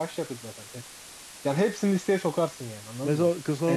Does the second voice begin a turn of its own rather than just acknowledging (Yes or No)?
Yes